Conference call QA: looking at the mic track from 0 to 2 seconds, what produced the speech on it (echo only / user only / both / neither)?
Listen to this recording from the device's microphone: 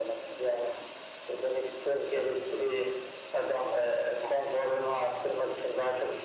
echo only